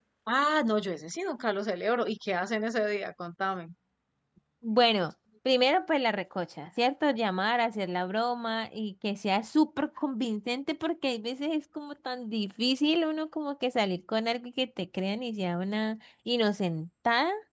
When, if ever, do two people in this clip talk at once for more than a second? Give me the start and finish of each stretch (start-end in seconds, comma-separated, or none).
none